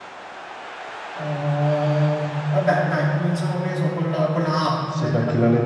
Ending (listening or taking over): taking over